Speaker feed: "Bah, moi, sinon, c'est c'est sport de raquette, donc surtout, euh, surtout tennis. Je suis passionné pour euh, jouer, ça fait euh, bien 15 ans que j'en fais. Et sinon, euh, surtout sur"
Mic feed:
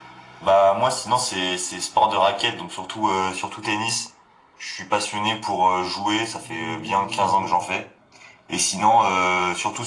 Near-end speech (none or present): present